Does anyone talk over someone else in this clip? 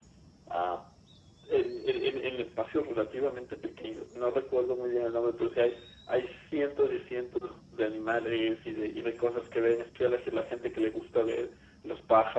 No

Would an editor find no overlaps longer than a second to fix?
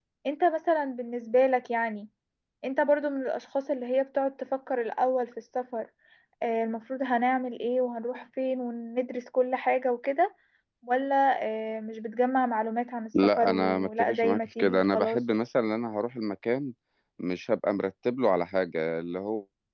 No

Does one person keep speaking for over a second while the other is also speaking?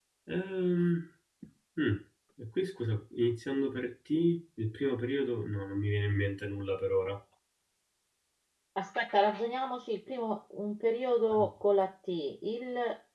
No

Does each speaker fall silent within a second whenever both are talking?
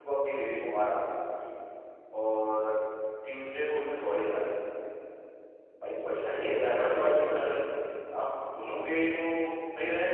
No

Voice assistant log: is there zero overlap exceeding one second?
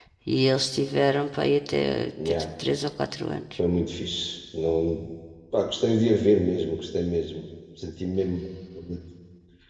Yes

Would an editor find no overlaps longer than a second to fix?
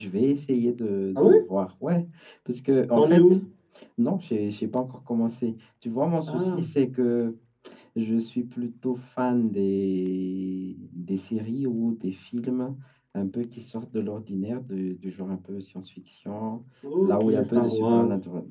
No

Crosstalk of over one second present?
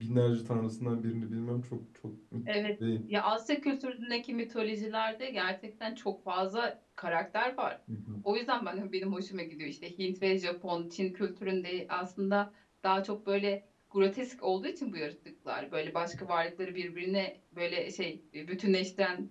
No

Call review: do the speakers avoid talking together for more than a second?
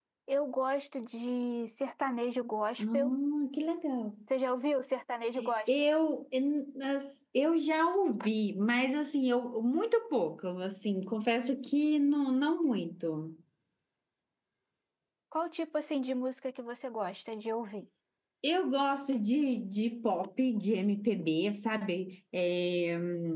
Yes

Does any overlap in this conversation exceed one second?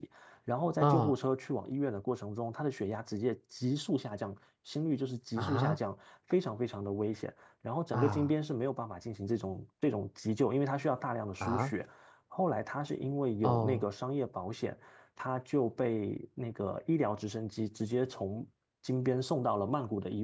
No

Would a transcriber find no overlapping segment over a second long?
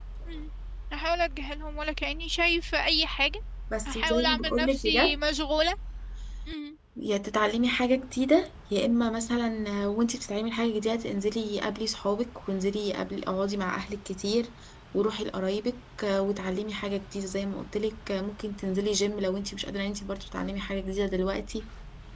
No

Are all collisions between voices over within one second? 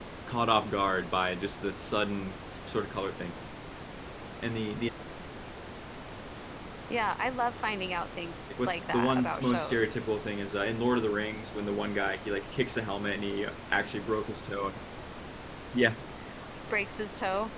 No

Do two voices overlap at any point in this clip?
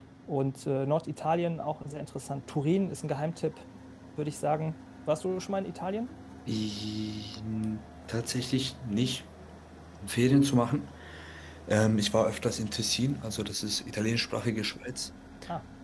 No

